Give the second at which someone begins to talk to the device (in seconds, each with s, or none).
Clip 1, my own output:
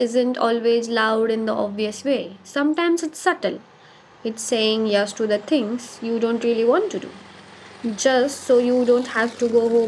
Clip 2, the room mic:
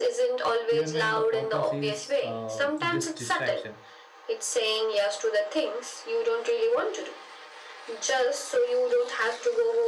0.7 s